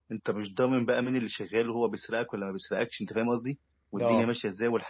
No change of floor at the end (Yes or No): Yes